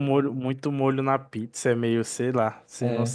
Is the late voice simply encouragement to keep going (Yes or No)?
No